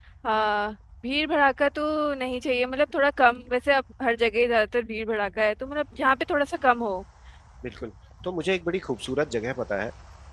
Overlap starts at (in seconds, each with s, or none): none